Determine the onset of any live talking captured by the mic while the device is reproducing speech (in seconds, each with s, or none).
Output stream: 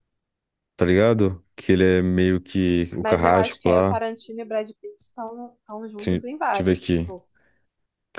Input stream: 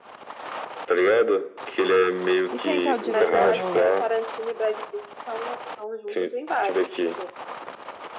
2.5 s